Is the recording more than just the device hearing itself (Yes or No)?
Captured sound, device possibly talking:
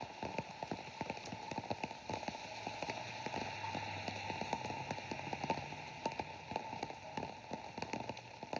No